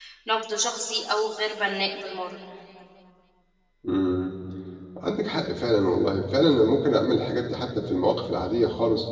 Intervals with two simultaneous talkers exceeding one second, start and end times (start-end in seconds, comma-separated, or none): none